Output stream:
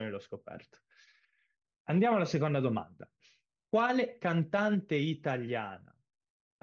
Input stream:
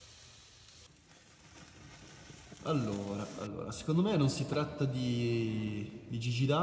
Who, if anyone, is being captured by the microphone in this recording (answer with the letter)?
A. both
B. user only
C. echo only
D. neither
B